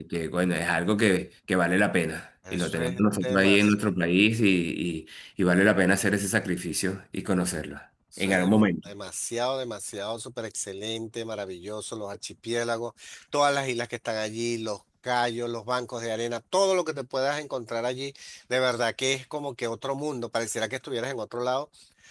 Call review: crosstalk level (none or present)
present